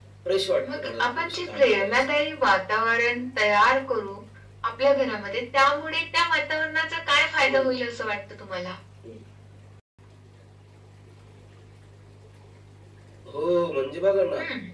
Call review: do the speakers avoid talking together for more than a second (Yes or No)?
No